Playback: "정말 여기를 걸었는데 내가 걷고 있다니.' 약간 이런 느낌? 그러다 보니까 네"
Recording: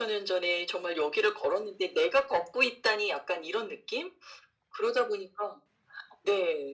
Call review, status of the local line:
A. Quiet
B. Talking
A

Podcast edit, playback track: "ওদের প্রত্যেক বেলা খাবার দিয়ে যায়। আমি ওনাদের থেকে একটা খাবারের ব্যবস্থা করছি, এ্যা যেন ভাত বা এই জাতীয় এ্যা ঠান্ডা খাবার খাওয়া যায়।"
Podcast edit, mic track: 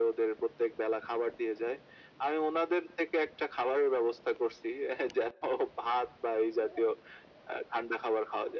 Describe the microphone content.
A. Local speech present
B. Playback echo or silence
B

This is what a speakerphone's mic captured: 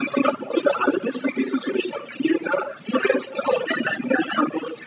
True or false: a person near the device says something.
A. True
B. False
B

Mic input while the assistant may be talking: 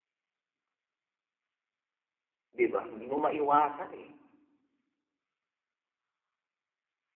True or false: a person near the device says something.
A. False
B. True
B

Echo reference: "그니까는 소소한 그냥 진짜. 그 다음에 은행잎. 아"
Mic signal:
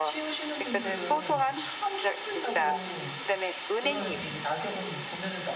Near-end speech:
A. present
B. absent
A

